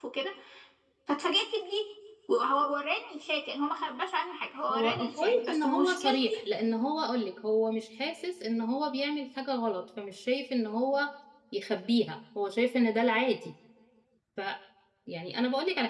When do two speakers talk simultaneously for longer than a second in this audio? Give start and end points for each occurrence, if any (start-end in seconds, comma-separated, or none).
4.7-6.3